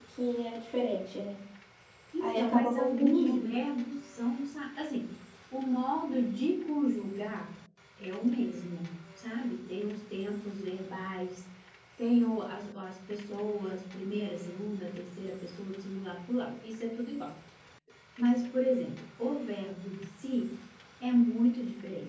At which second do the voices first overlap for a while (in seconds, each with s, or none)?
2.2 s